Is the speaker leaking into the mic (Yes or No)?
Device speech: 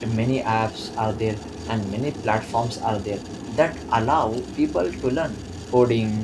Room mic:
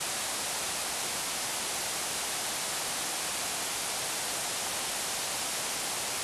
No